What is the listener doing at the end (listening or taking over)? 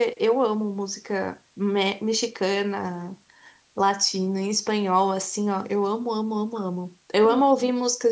listening